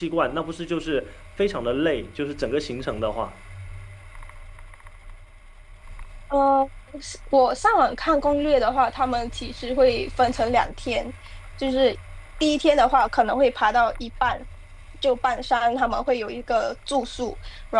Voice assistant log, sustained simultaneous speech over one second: none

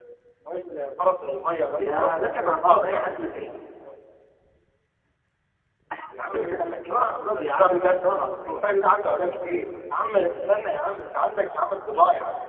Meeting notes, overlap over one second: present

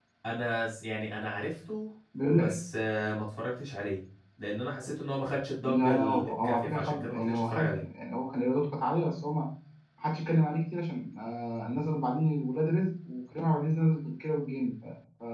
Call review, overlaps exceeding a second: present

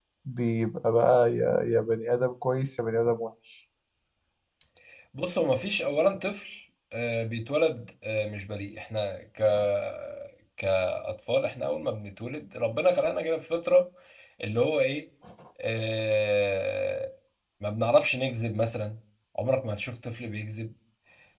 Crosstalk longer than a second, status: none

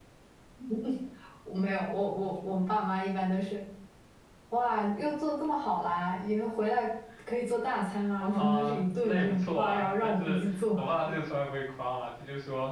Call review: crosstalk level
present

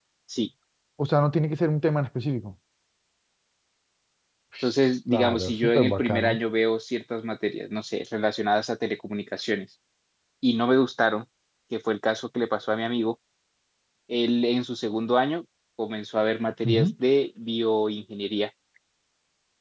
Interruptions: present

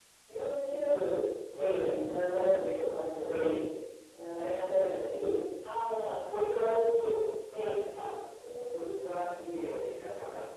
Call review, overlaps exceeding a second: none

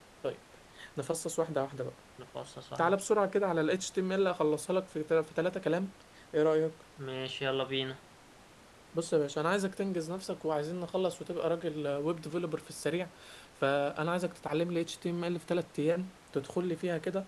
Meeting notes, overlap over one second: none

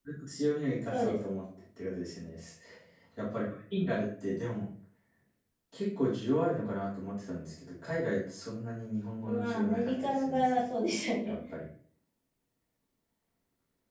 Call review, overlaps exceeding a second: present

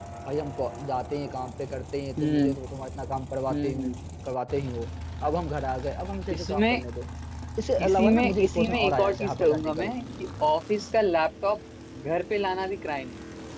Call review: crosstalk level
present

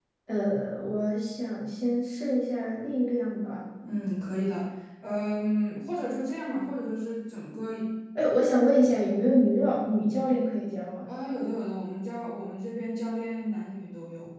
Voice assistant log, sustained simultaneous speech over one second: none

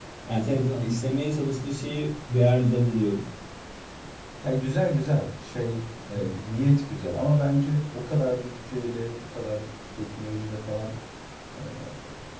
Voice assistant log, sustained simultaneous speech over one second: none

